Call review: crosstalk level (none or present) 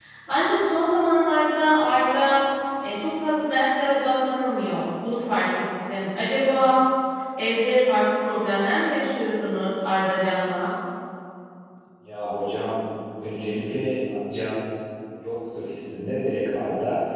none